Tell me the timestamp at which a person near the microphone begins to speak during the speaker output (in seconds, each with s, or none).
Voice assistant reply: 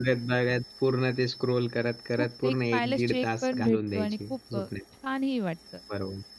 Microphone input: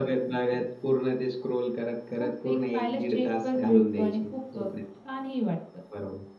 none